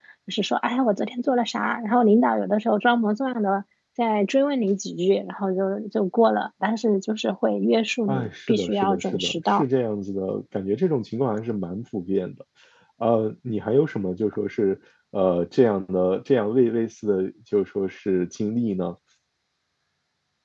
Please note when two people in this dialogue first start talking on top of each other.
8.1 s

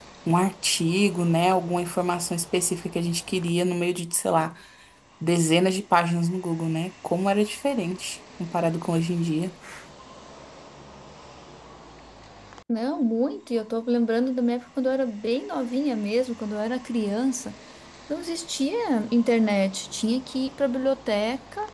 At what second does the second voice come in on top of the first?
none

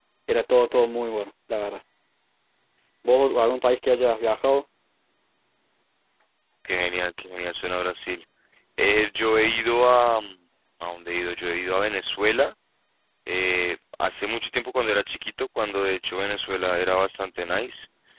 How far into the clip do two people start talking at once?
none

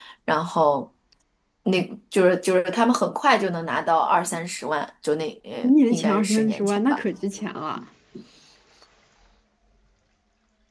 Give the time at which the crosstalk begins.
5.6 s

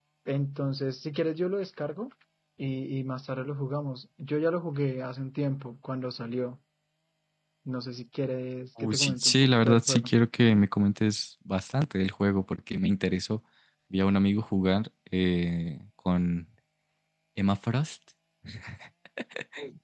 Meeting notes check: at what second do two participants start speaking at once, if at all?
8.8 s

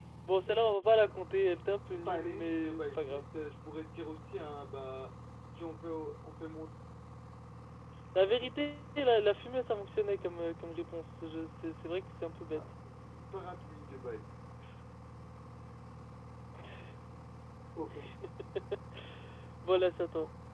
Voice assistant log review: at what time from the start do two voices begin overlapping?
1.9 s

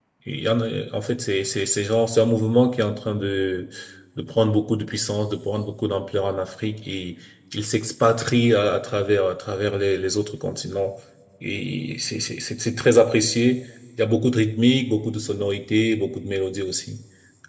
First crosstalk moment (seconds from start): none

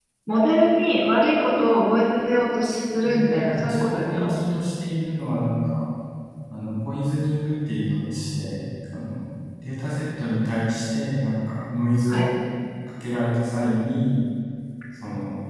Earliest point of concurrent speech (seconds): 3.0 s

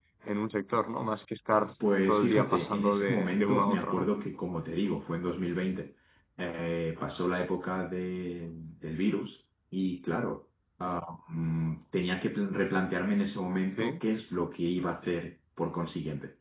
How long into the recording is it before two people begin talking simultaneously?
2.1 s

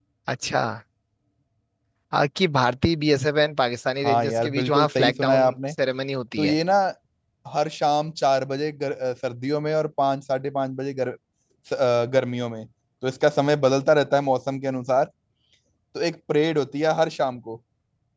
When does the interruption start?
4.0 s

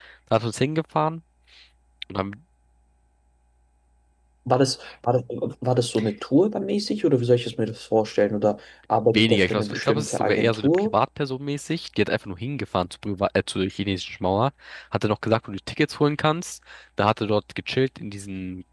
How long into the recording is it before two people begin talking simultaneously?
9.1 s

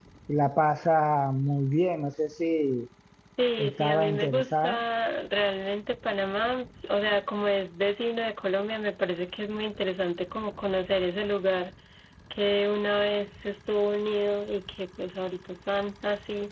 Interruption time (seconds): 3.6 s

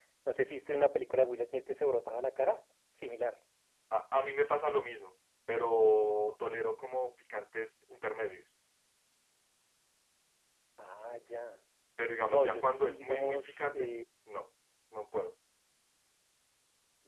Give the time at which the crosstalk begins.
12.3 s

